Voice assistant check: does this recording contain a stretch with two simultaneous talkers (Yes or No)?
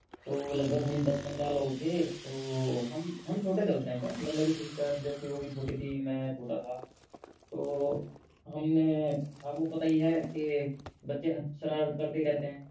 No